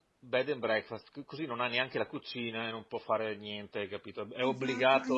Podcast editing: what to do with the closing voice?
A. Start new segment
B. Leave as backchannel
A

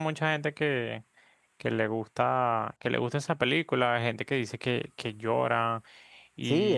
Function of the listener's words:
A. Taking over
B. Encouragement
A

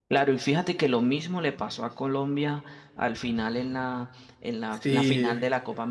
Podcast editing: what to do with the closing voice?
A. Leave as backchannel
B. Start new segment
A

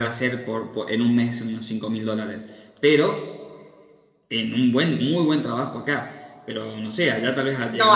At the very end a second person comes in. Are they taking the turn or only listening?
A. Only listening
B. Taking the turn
B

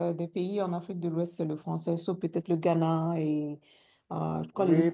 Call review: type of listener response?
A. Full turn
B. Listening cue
A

